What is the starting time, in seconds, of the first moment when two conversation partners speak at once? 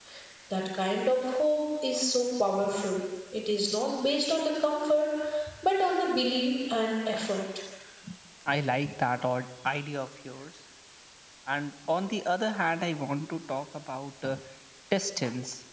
none

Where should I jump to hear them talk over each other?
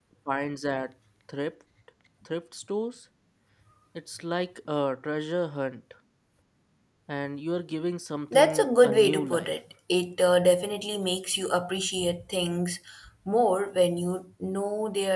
8.3 s

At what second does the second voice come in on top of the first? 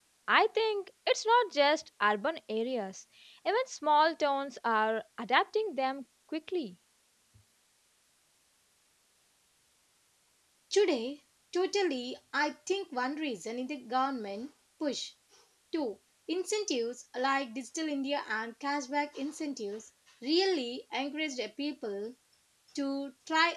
none

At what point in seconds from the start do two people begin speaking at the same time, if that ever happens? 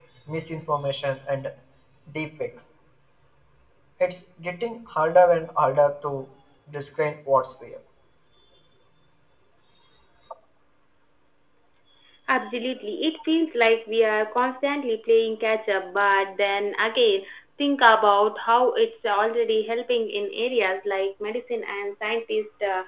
none

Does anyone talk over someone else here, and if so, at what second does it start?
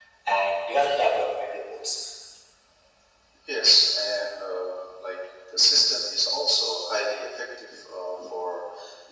none

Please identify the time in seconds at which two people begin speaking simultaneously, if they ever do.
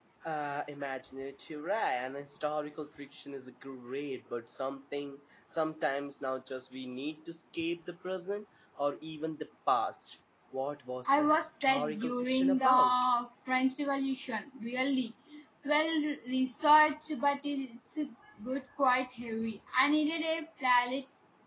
11.1 s

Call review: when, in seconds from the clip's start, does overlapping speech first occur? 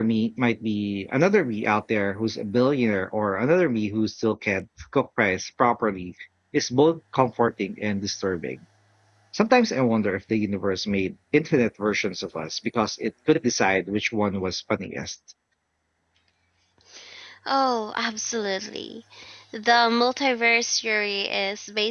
none

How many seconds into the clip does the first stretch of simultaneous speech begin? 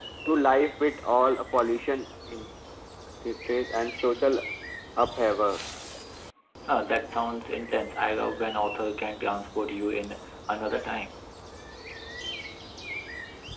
none

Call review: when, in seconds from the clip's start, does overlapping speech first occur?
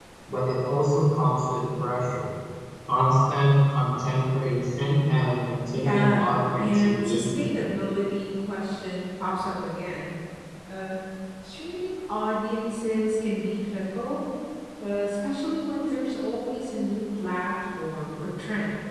5.7 s

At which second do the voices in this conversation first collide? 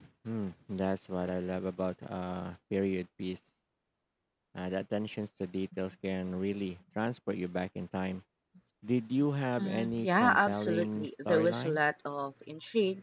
9.6 s

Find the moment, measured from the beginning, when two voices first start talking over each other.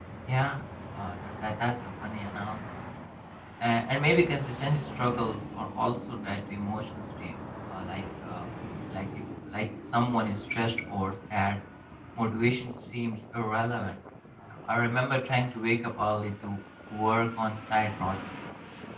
none

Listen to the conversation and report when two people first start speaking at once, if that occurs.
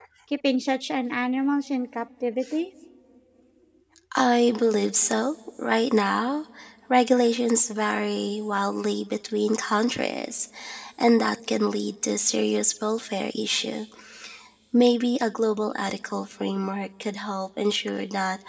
none

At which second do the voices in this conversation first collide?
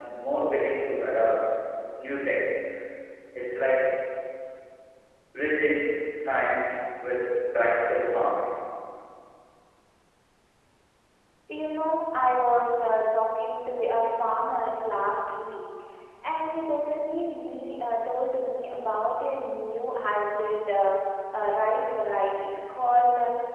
none

